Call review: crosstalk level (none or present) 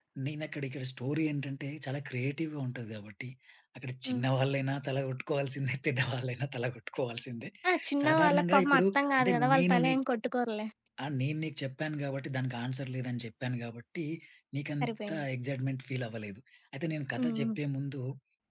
present